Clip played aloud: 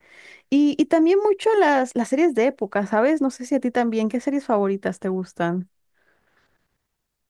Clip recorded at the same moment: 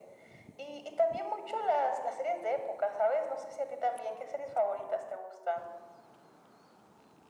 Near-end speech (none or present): none